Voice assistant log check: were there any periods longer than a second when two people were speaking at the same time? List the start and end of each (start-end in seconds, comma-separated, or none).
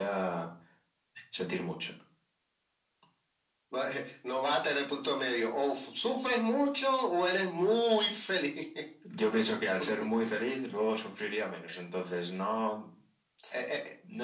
none